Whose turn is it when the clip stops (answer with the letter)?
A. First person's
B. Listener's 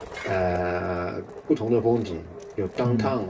B